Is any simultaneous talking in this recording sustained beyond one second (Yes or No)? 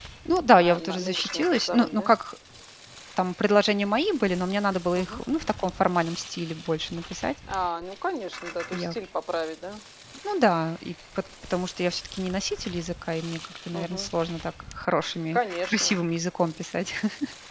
Yes